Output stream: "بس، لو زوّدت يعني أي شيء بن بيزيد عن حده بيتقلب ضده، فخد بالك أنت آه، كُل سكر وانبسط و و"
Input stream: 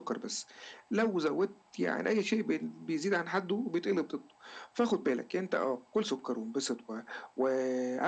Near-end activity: none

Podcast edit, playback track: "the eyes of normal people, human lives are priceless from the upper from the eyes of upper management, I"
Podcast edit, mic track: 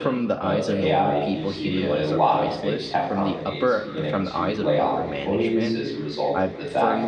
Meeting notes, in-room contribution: present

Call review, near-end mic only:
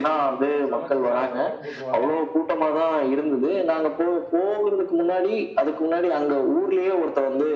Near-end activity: present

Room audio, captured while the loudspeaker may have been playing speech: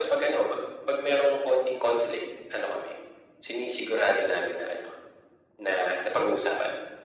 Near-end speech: none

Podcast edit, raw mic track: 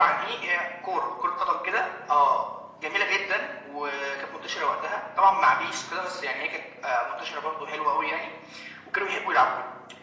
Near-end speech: none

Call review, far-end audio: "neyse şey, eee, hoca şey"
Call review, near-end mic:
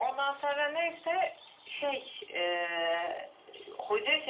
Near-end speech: none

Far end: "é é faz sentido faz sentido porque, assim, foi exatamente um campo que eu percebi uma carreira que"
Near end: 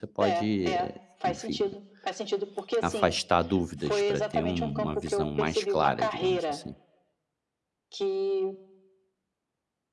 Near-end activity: present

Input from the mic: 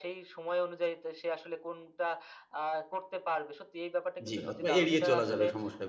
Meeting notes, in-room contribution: present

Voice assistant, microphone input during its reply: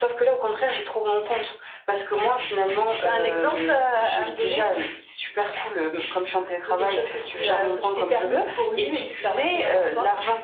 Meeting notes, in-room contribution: present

